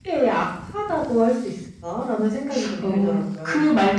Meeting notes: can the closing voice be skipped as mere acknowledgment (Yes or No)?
No